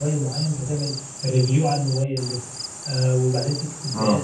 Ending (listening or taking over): listening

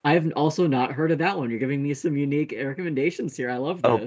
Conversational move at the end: taking over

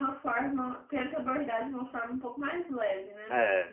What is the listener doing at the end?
taking over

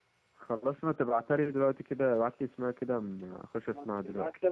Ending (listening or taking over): taking over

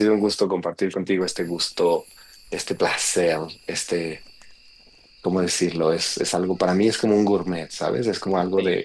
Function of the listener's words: taking over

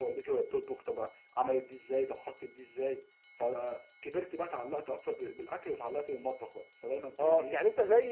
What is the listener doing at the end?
taking over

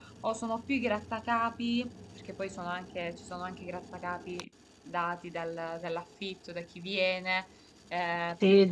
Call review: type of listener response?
taking over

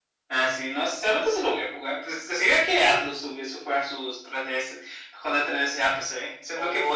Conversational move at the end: taking over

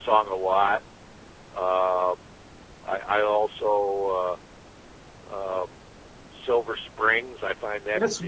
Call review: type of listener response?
taking over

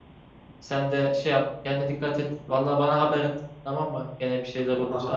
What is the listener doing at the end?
taking over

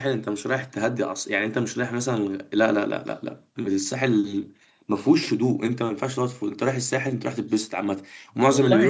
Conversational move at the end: taking over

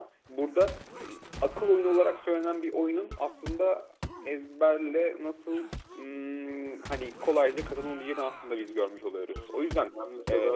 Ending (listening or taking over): taking over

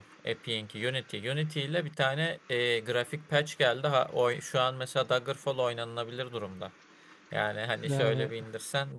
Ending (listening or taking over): listening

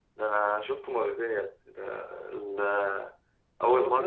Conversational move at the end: listening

